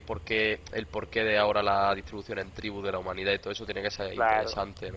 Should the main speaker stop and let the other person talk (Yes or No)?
Yes